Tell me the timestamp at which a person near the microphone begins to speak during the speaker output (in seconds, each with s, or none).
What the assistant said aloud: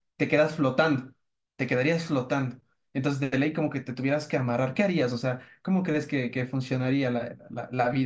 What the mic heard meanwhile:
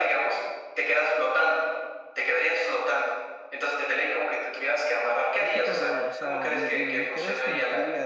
5.4 s